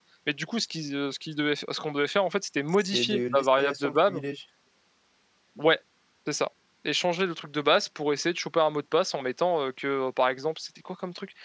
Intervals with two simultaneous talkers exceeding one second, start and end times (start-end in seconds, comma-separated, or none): 2.7-4.2